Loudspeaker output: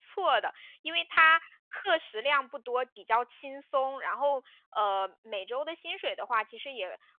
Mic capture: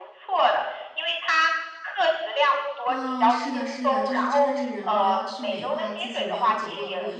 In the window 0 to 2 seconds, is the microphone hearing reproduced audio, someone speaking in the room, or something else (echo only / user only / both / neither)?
echo only